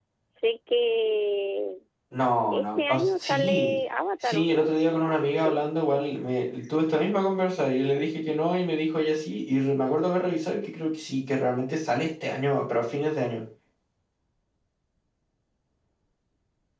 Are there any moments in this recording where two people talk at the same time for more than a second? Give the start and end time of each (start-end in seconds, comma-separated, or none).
2.5-3.8, 4.2-5.6